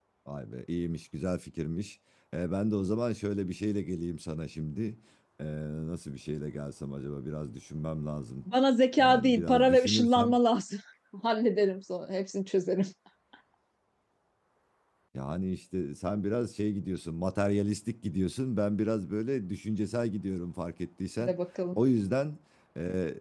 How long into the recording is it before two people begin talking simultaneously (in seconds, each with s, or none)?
9.0 s